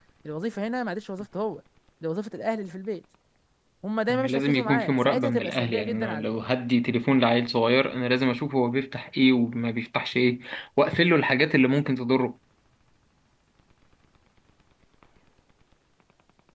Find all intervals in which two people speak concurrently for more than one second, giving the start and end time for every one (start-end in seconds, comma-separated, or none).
4.1-6.3